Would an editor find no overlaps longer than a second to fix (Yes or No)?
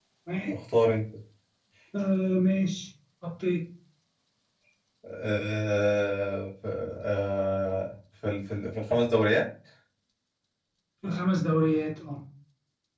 Yes